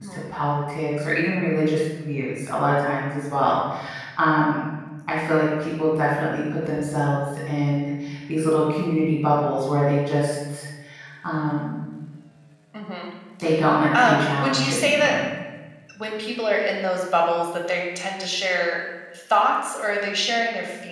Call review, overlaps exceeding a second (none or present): present